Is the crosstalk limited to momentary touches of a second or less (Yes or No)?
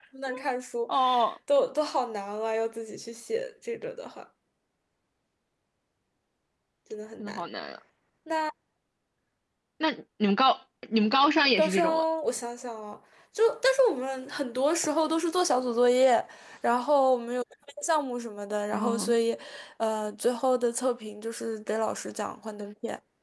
Yes